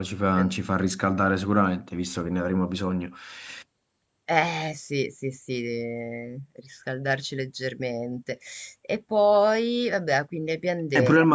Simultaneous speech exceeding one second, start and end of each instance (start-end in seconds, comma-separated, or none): none